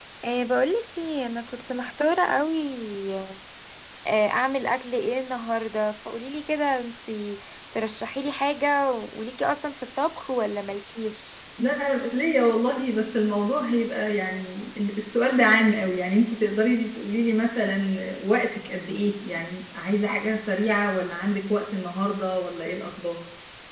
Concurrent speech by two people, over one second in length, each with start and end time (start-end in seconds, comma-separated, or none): none